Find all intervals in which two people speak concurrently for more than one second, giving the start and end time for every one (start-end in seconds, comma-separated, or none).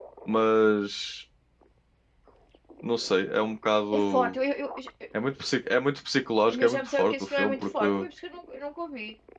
6.5-7.8